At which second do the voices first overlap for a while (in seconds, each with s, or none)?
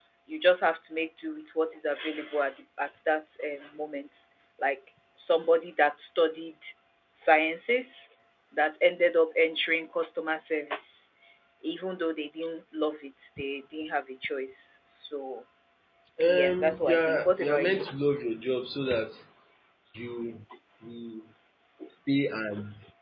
16.3 s